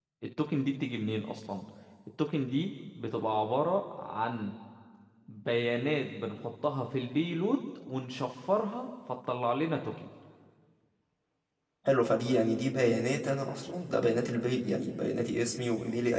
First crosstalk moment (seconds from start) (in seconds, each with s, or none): none